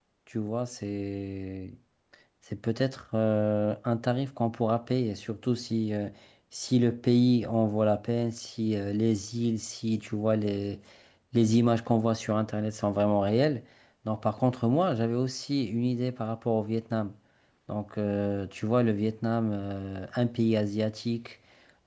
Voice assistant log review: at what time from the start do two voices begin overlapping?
none

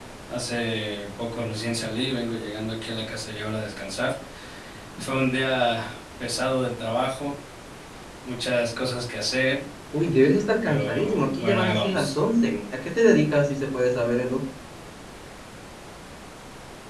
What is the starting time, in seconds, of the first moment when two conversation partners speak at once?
10.6 s

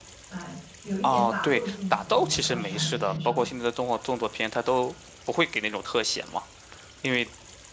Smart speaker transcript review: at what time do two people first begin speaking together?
1.0 s

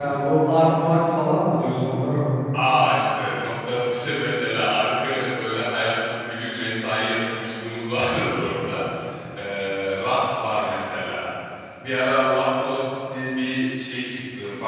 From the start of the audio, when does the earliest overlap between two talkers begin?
none

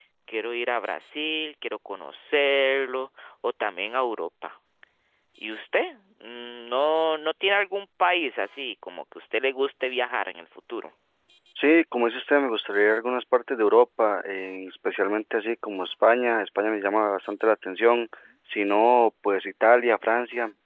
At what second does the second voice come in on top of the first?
none

